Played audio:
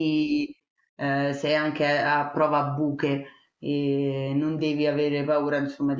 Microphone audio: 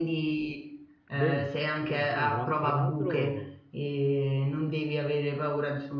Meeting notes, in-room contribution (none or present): present